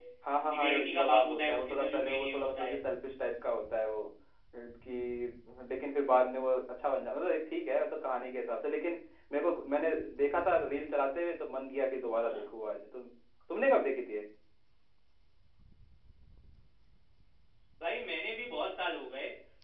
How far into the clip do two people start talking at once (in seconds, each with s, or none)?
0.6 s